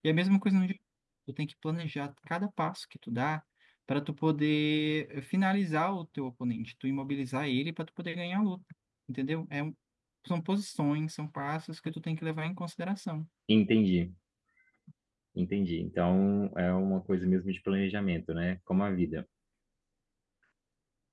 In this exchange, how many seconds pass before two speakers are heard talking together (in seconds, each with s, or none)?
none